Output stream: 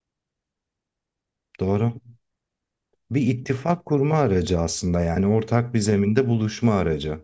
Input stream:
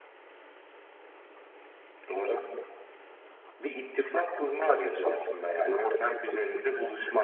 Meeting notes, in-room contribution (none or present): none